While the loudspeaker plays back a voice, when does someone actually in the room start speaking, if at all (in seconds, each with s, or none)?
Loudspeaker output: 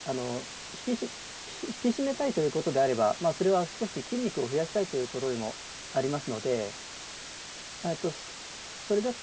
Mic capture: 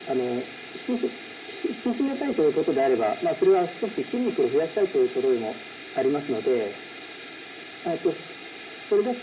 none